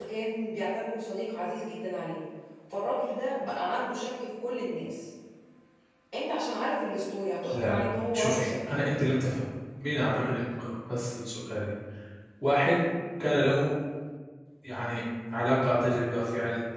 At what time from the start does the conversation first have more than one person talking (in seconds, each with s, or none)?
7.5 s